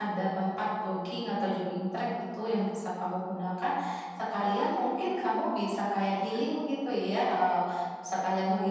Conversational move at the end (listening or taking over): listening